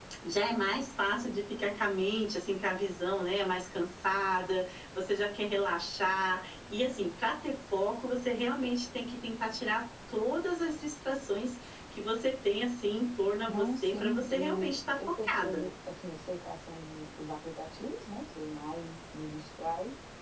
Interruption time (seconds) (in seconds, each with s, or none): 13.5 s